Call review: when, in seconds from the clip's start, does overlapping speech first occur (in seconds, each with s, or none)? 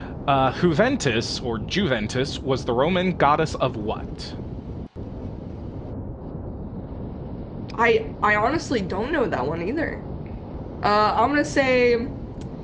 none